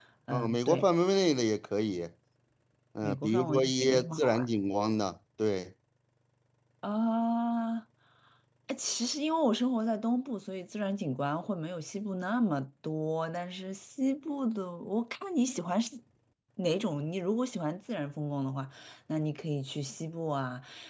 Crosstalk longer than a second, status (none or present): present